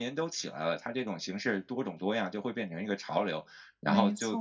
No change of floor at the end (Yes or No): Yes